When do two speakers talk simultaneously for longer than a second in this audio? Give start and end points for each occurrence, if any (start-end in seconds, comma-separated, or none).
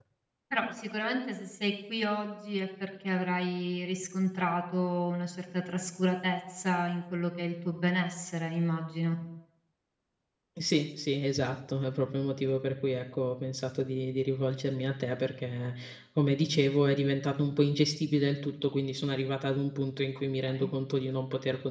none